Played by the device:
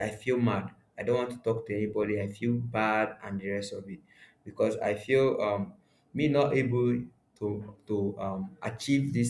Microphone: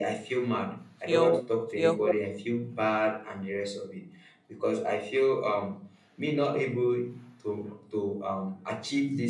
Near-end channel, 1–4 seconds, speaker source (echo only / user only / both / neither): both